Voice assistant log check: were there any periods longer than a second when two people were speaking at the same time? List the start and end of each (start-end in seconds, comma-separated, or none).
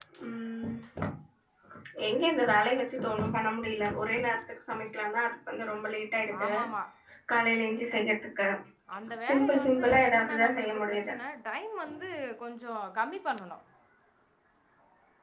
9.3-11.1